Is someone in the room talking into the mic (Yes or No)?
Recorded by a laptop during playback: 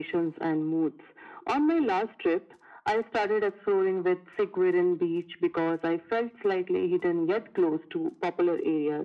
No